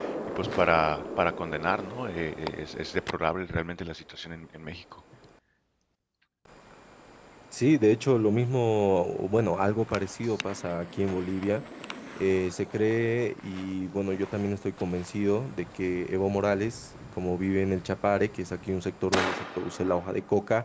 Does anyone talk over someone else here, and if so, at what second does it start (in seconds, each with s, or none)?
none